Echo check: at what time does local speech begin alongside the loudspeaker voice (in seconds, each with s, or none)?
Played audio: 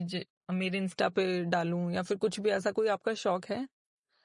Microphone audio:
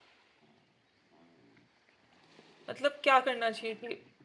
2.7 s